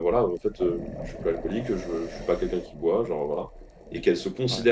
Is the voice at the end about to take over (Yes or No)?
No